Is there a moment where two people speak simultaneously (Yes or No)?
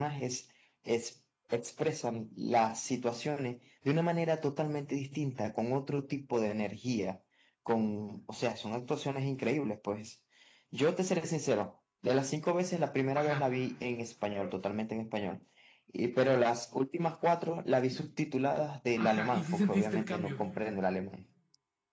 Yes